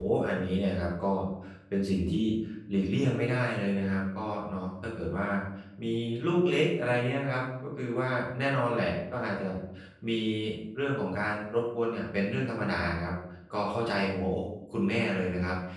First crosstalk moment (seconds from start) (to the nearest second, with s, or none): none